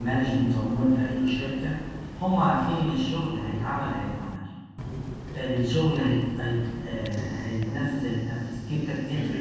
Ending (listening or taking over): listening